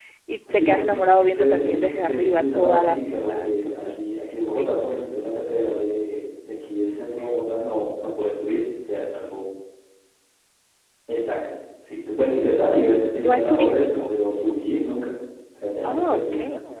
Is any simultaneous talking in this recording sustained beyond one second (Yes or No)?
Yes